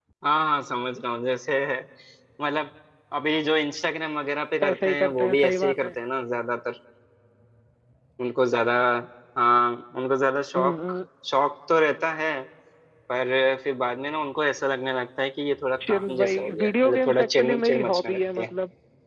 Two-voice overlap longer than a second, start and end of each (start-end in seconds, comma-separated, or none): 4.6-5.9, 15.8-18.5